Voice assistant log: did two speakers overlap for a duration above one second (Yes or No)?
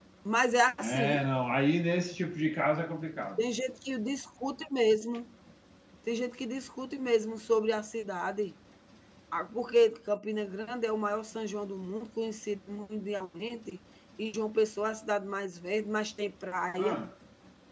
No